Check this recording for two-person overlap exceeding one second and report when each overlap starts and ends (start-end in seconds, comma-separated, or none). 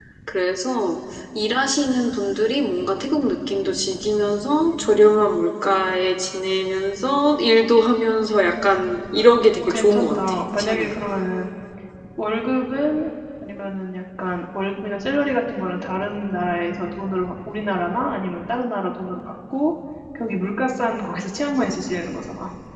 9.6-10.9